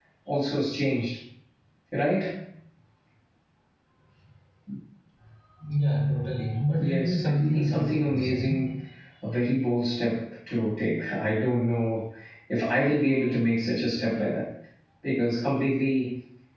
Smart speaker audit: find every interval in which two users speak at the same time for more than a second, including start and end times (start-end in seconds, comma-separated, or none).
6.8-8.6